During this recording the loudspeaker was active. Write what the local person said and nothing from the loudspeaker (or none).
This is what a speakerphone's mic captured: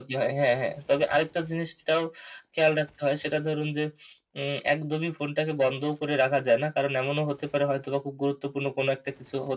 none